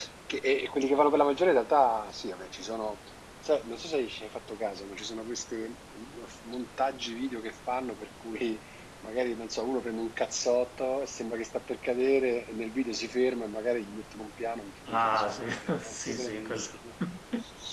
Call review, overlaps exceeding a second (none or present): present